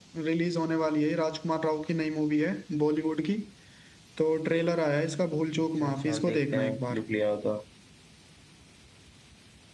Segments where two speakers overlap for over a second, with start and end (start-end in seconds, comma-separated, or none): 5.6-7.0